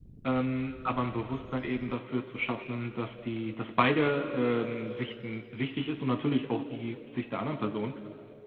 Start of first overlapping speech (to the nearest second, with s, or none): none